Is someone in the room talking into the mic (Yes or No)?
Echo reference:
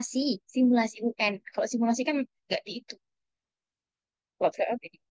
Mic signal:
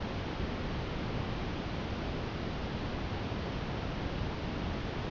No